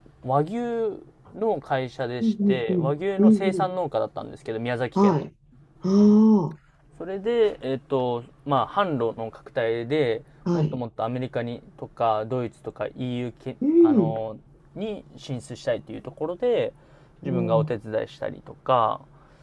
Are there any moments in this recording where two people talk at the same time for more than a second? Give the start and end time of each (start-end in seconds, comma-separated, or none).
2.2-3.7